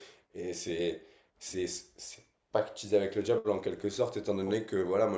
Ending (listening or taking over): listening